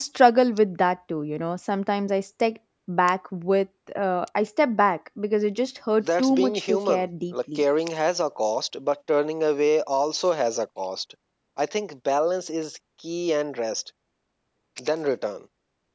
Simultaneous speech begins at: 6 s

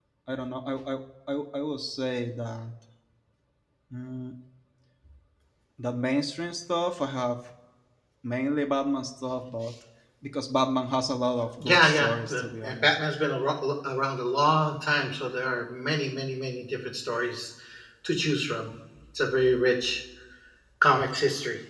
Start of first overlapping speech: 12 s

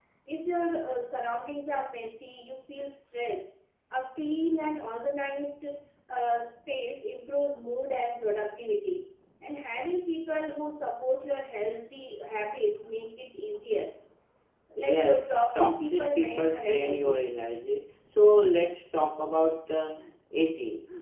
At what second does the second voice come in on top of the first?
15 s

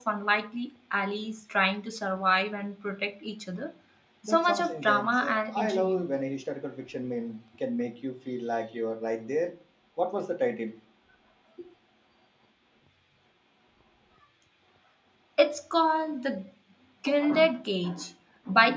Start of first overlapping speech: 4 s

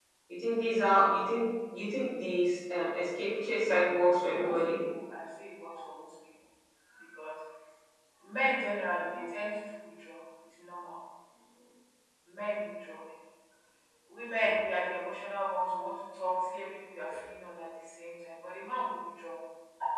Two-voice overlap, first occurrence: 3 s

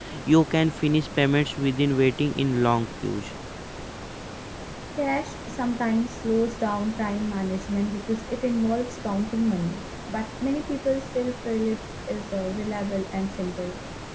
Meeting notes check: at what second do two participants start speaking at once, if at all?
none

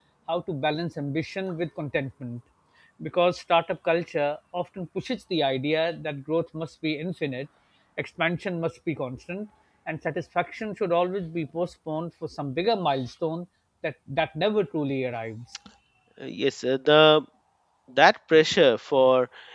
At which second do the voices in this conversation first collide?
none

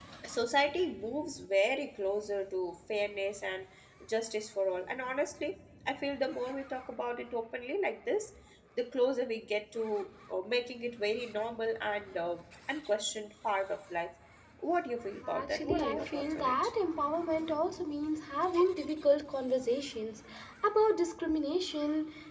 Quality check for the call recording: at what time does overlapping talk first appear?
15 s

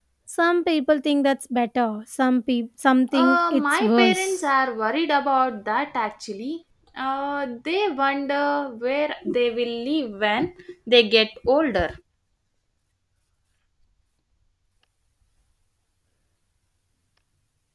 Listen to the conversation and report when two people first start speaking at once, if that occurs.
3 s

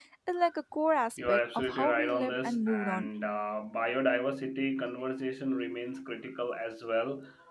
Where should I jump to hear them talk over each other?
1 s

